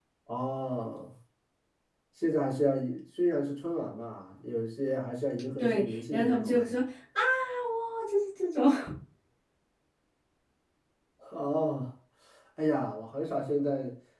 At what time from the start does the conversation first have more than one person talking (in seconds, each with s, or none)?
5.5 s